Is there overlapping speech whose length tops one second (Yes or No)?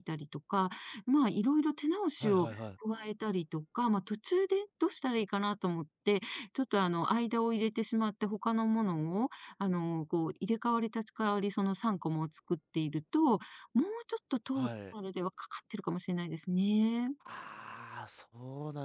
No